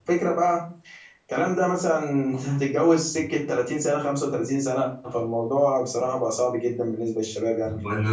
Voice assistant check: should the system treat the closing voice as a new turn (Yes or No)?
Yes